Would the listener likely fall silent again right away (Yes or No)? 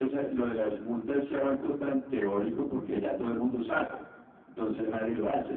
Yes